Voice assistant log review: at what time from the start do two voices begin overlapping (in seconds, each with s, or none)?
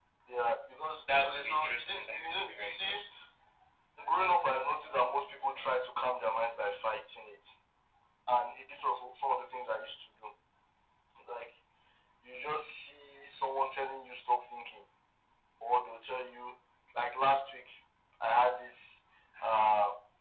1.2 s